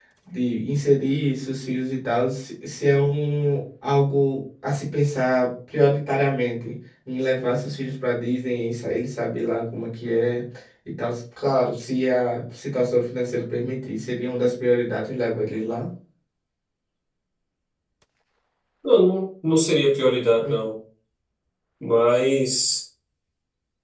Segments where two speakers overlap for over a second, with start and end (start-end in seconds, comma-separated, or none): none